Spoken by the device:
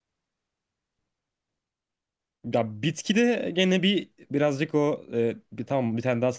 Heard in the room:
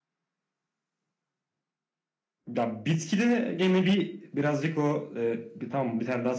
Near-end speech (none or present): none